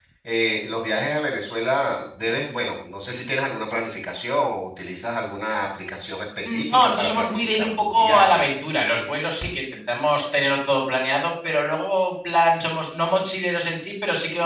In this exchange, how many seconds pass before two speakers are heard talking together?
6.4 s

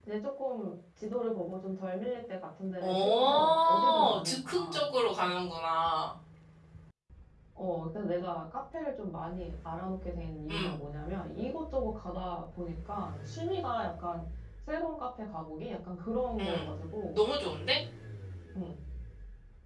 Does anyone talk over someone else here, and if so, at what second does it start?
2.8 s

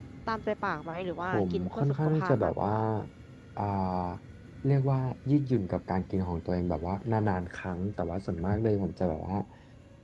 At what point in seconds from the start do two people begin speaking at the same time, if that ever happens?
1.2 s

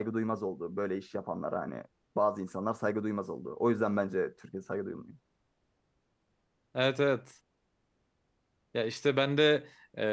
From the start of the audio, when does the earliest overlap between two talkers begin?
none

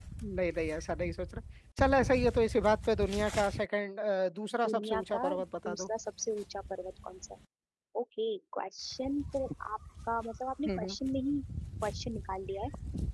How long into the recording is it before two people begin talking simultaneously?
4.7 s

